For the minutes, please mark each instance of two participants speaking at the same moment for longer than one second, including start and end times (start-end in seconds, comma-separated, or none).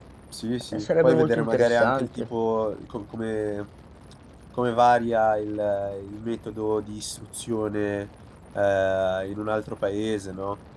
0.7-2.1